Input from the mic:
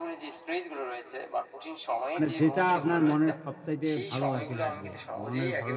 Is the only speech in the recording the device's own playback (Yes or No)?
No